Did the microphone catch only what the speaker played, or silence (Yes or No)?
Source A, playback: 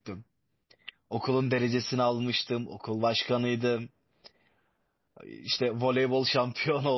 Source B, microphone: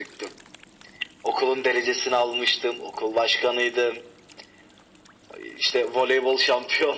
Yes